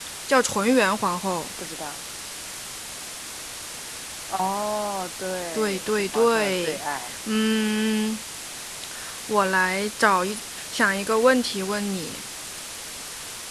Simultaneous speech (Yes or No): Yes